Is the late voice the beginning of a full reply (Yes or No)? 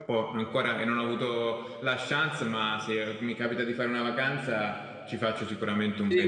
Yes